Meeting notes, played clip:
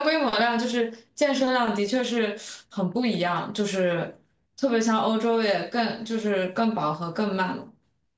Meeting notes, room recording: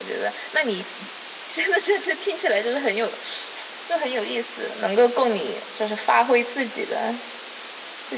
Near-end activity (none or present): present